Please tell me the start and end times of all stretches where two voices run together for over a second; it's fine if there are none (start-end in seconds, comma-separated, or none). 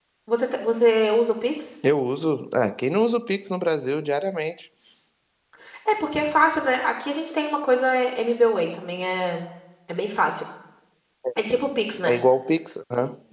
none